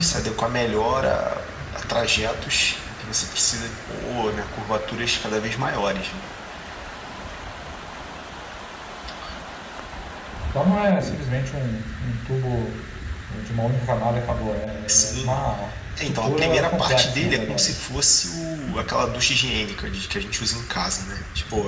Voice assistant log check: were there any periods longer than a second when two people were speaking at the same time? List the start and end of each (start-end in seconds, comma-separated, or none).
16.0-17.8